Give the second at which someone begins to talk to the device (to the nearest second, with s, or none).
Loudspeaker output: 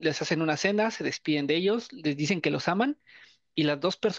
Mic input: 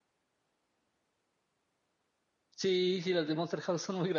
3 s